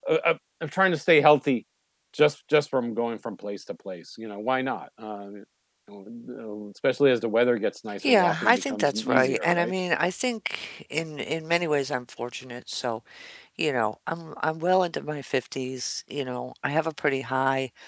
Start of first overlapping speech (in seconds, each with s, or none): 8.0 s